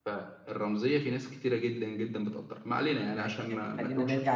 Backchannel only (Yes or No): No